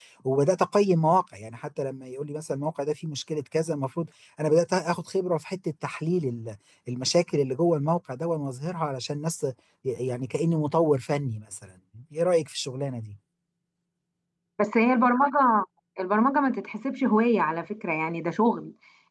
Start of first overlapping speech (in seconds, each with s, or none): none